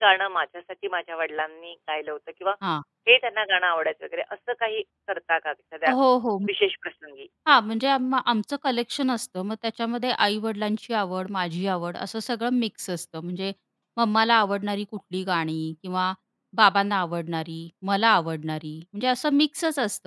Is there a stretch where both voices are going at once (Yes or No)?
No